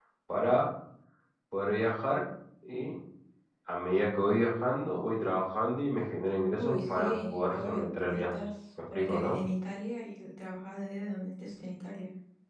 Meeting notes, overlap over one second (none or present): present